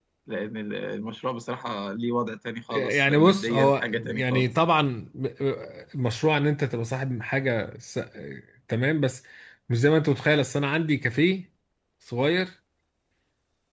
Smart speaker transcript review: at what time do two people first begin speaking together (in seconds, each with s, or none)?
2.7 s